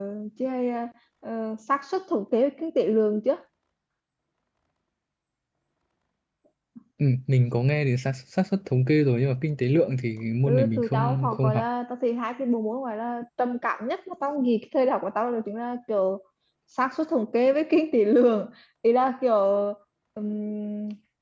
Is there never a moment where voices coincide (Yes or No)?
No